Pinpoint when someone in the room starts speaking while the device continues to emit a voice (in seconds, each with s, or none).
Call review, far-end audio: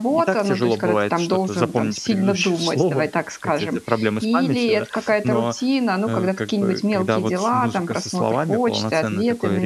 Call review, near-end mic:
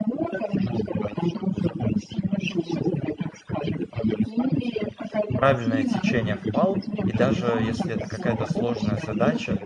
5.4 s